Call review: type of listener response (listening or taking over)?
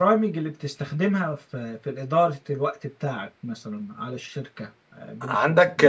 taking over